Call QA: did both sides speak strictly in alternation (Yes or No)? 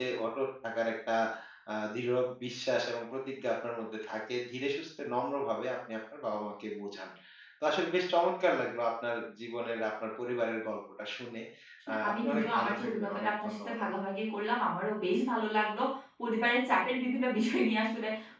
No